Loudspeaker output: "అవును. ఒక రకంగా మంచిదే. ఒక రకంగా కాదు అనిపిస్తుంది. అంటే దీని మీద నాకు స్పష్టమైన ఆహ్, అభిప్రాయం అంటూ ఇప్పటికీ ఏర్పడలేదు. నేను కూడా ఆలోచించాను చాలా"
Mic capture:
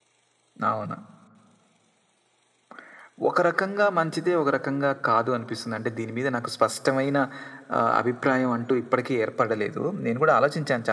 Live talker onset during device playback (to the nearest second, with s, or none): none